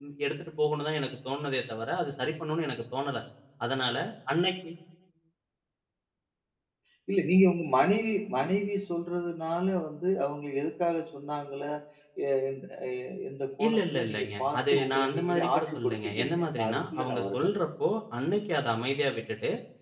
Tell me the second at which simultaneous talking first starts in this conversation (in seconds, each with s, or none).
13.7 s